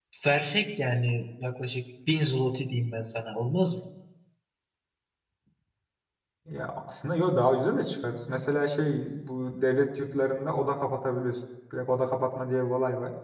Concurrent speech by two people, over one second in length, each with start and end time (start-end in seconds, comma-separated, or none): none